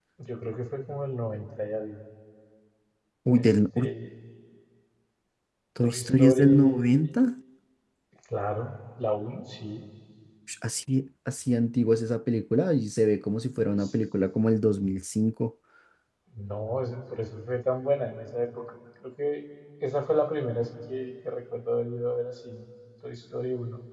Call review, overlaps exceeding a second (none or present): present